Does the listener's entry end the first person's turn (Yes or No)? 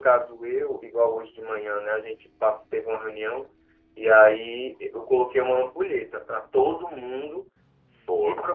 No